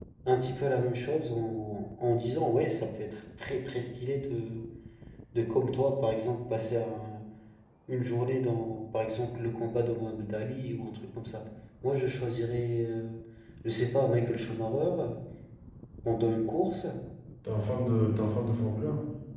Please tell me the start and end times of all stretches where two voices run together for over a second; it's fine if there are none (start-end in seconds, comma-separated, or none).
none